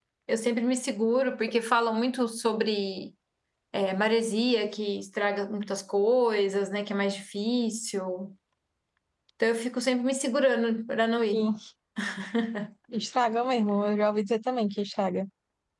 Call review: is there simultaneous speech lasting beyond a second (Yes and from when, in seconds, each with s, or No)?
No